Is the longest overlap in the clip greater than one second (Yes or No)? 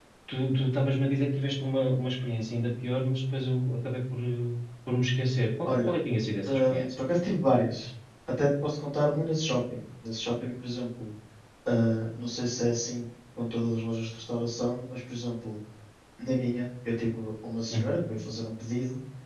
No